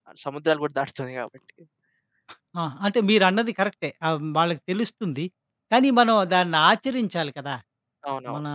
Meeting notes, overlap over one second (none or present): none